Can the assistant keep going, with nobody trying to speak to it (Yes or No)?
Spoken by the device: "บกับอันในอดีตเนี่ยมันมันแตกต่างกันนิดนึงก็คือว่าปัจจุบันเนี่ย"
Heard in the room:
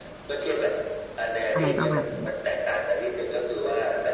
No